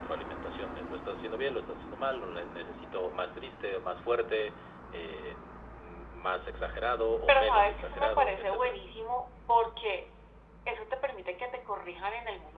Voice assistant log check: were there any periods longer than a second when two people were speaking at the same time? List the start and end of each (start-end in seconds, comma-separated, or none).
7.3-8.8